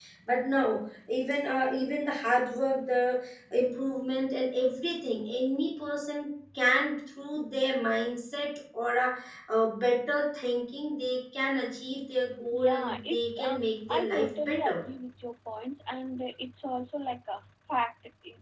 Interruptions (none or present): present